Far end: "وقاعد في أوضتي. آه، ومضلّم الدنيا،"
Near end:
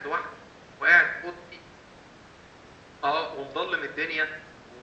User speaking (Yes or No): No